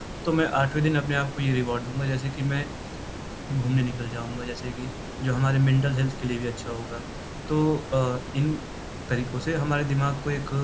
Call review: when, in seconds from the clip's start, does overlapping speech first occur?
none

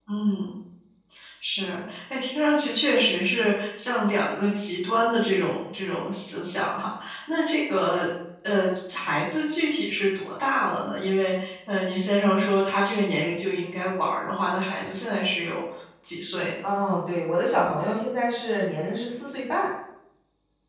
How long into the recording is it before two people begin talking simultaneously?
none

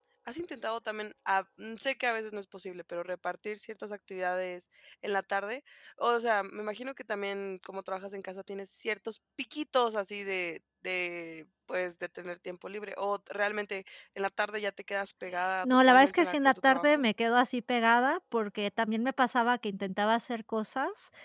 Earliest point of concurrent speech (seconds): 16 s

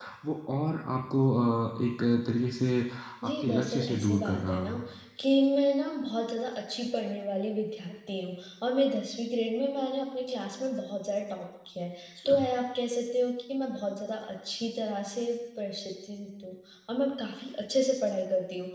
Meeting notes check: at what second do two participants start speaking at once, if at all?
3 s

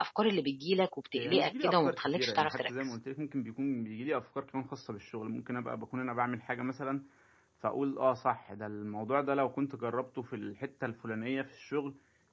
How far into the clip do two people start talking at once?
1 s

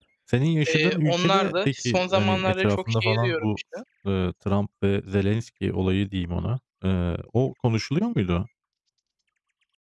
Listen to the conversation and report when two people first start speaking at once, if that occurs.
1 s

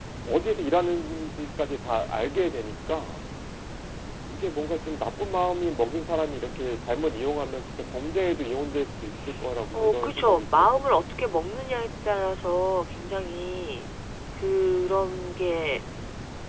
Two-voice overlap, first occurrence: 10 s

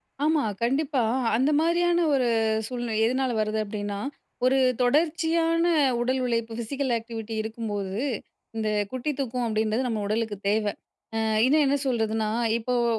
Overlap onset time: none

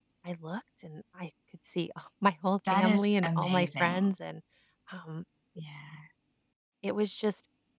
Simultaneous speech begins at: 3 s

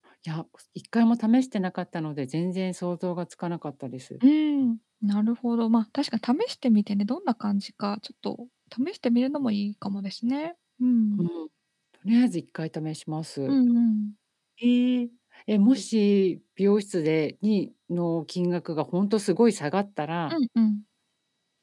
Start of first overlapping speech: none

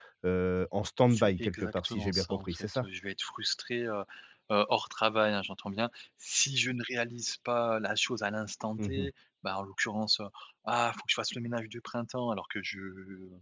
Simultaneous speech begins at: 1 s

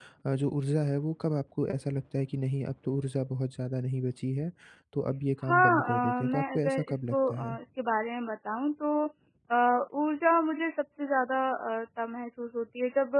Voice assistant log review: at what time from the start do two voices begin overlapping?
5 s

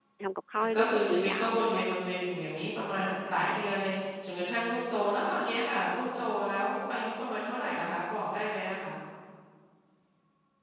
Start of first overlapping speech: 1 s

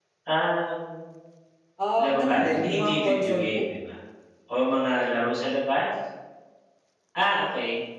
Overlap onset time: 2 s

